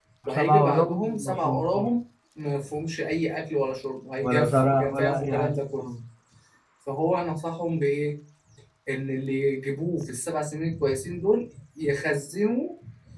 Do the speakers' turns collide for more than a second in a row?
Yes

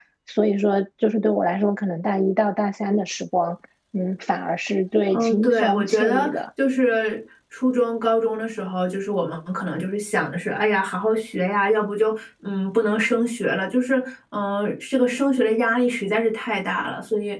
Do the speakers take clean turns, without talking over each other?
No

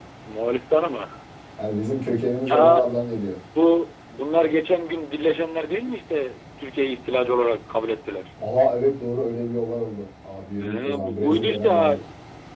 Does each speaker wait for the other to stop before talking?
No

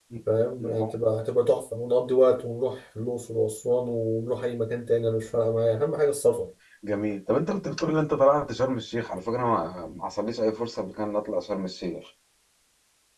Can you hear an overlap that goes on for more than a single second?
No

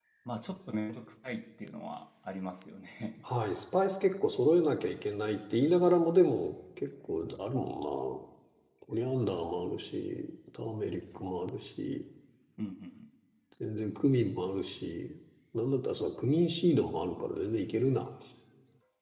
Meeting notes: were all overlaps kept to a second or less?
Yes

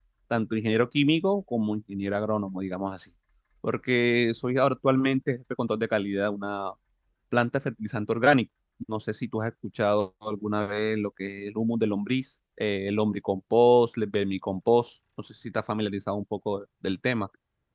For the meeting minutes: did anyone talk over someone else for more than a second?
No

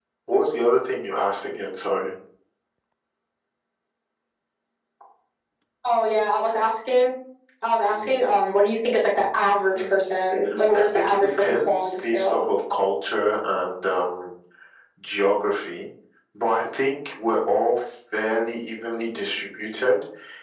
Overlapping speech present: Yes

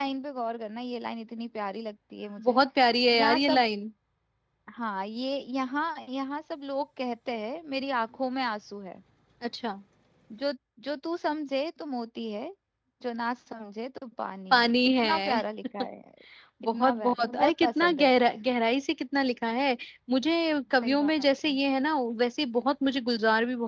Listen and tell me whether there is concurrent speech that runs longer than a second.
Yes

